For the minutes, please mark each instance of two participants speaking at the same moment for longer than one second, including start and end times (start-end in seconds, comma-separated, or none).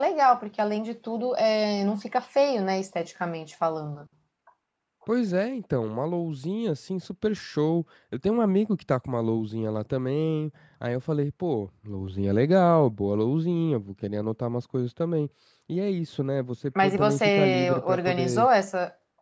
16.8-18.5